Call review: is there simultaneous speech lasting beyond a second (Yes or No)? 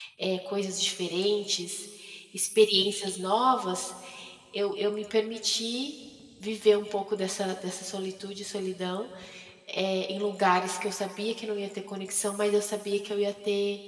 No